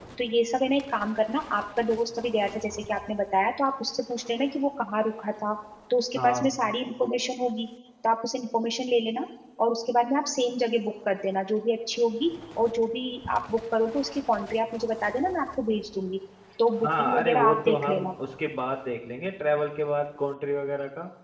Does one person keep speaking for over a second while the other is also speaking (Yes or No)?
Yes